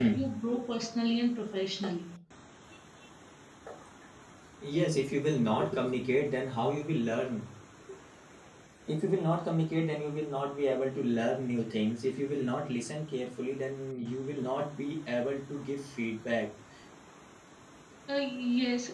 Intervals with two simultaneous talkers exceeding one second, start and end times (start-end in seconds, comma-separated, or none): none